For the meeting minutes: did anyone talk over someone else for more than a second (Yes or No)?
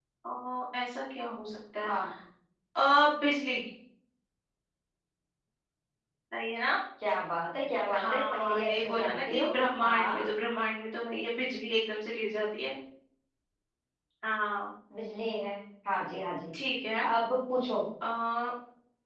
Yes